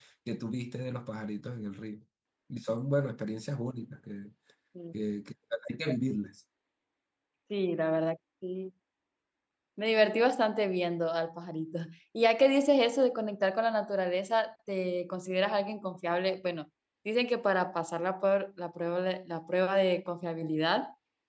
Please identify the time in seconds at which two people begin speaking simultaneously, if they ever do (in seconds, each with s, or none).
none